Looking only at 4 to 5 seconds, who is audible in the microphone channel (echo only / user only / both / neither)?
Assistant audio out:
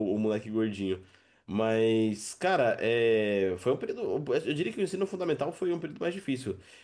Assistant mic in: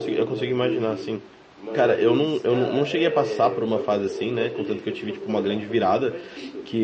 both